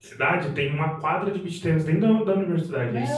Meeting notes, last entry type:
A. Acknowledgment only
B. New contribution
A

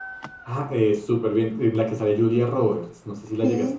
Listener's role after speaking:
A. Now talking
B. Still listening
A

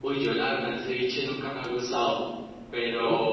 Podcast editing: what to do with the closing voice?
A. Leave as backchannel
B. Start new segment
A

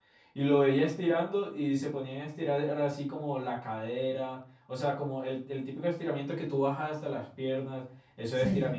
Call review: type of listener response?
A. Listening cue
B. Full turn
A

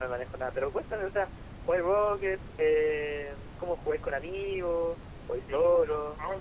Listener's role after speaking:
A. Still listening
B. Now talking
B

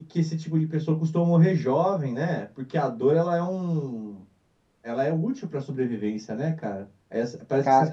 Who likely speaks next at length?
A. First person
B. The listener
A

